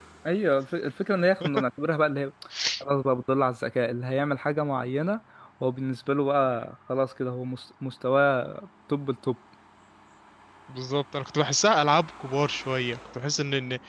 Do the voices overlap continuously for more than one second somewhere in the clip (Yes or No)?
No